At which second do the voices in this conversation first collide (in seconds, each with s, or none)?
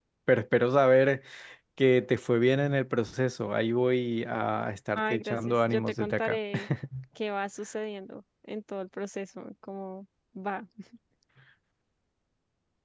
5.0 s